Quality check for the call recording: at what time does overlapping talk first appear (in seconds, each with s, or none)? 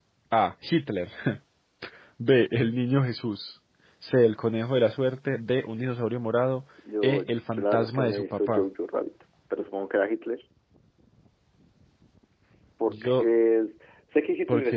7.0 s